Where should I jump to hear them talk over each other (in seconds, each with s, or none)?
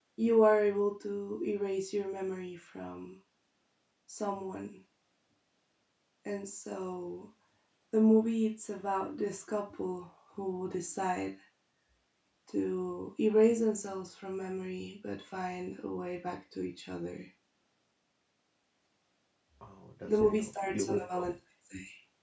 20.1 s